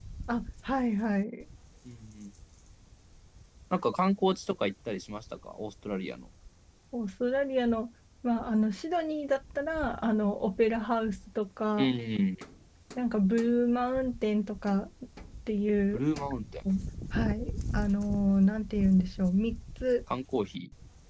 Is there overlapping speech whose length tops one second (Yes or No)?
No